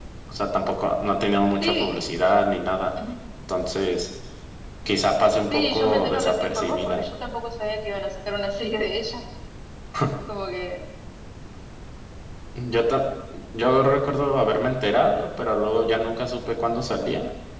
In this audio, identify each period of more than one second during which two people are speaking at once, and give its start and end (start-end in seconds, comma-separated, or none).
5.5-7.0